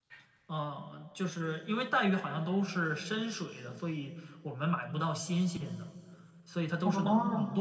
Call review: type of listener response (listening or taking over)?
listening